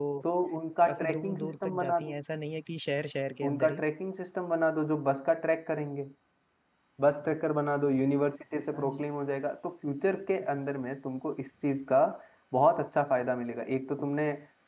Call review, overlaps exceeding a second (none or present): present